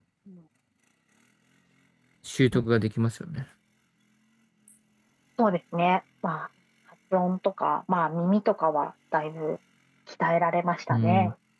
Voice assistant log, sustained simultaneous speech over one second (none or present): none